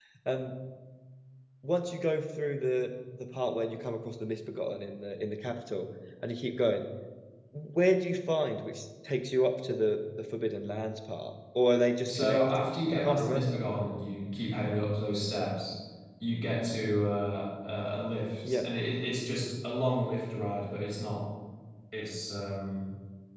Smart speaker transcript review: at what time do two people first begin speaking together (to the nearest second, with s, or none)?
12 s